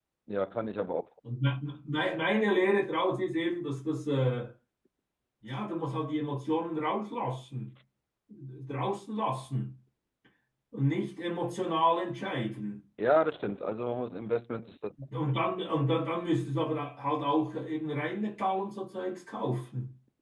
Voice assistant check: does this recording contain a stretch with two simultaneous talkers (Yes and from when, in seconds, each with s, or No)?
No